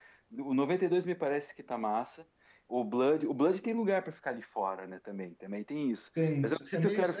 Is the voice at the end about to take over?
Yes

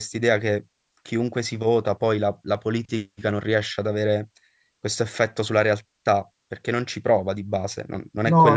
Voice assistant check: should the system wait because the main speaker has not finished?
No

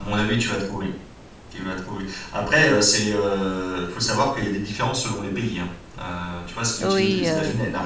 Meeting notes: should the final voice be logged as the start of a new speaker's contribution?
No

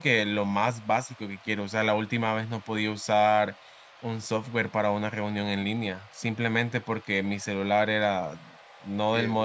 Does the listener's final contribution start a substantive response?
No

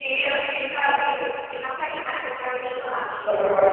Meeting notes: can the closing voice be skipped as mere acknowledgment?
No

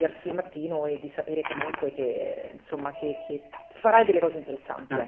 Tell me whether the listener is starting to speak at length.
Yes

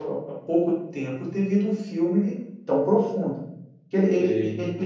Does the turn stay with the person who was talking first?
Yes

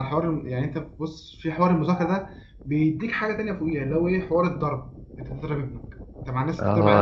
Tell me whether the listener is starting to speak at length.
Yes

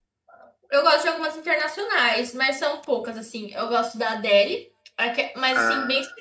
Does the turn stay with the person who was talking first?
Yes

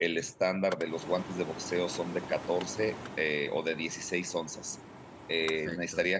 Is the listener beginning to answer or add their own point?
No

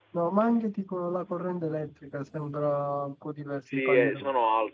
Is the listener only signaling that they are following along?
No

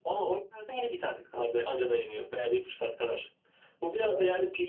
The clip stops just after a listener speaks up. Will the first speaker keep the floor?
Yes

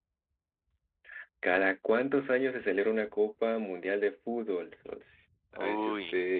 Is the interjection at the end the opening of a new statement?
No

